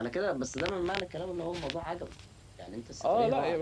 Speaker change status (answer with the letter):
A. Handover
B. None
A